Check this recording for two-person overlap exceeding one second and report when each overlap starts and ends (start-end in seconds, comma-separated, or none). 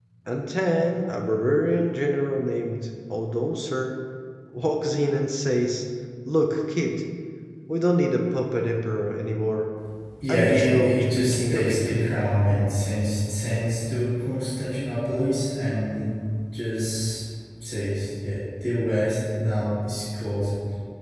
10.3-12.1